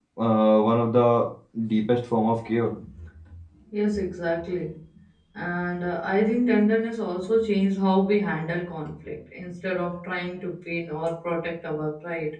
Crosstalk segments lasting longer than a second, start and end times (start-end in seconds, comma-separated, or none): none